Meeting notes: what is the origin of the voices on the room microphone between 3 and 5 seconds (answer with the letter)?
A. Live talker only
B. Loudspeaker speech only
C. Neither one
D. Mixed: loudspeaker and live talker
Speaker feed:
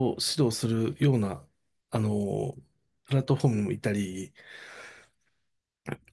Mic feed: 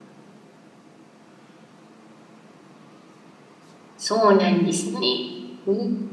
A